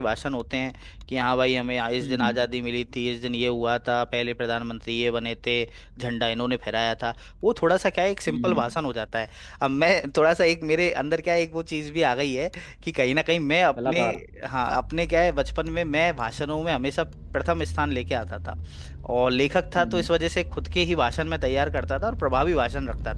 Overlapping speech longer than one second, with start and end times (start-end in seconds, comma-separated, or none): none